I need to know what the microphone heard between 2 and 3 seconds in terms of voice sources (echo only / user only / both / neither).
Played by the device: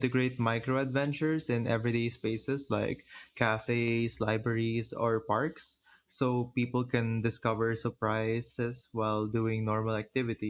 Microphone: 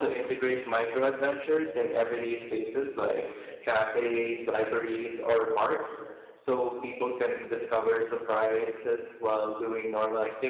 echo only